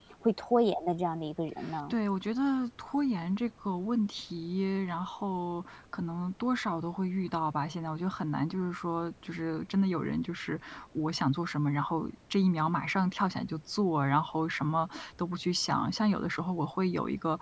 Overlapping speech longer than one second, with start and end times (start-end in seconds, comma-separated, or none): none